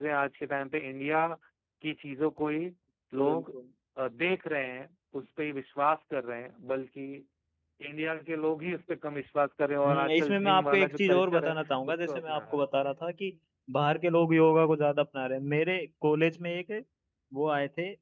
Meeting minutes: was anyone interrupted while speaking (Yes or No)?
Yes